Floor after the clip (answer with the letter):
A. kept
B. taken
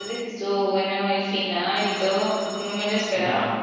B